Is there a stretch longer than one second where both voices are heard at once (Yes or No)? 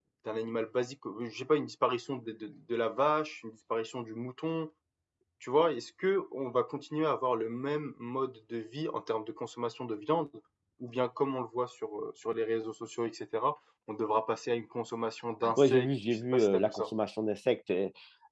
Yes